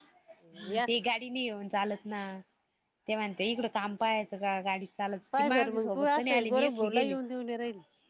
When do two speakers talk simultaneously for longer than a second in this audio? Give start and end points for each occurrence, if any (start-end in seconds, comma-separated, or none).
5.4-7.1